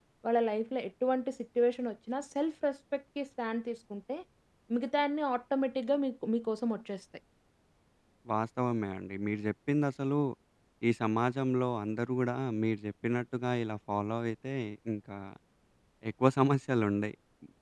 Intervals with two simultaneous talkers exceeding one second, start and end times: none

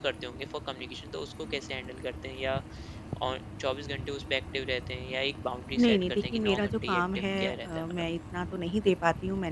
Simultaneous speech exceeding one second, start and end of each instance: 5.8-7.9

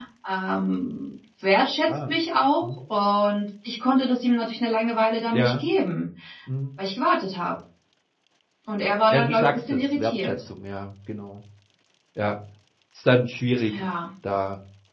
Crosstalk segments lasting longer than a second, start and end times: 9.1-10.3

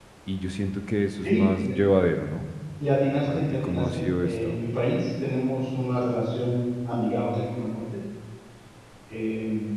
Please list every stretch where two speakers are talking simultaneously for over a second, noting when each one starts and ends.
3.3-4.6

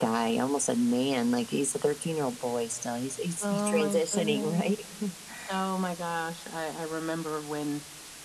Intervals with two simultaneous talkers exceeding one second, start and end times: 3.4-4.7

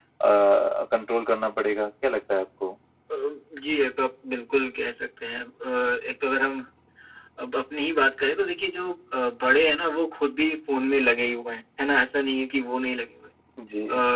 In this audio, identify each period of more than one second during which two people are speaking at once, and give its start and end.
none

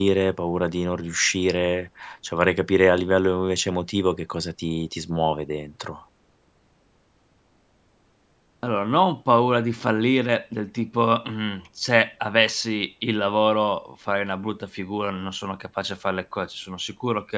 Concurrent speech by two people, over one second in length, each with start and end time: none

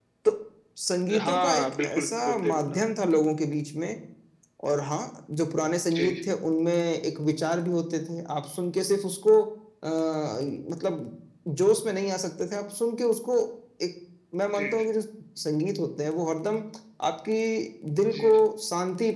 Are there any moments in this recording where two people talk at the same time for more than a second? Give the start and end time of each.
1.2-2.8

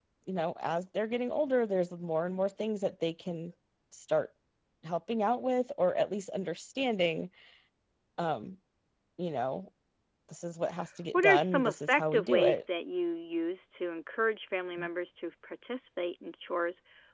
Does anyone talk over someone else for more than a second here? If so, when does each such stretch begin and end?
11.1-12.6

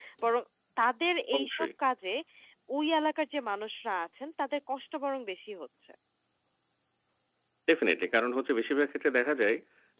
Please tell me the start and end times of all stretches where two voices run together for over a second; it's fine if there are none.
none

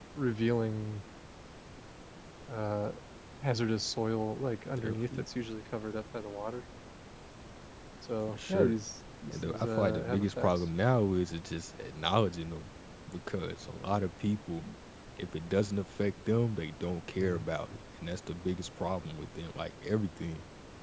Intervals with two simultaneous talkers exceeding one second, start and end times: 9.3-10.6

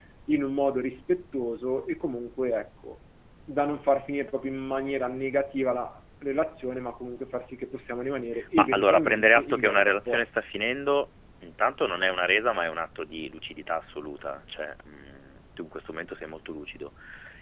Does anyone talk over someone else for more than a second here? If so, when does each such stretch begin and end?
8.6-10.3

